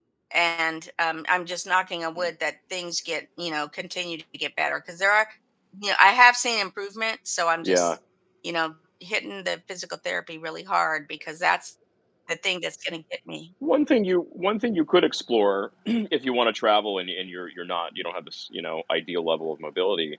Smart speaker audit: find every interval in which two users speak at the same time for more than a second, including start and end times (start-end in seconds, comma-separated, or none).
none